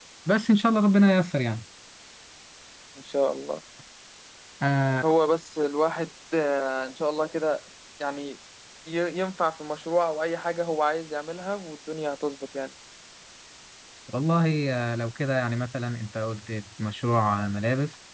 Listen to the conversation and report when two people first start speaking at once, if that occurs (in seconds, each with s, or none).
none